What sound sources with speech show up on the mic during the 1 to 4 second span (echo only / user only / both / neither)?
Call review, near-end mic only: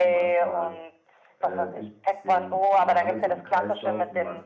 both